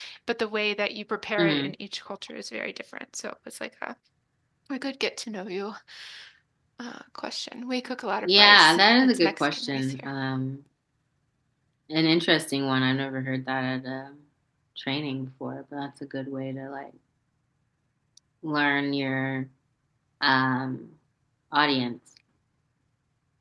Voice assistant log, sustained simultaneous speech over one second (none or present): present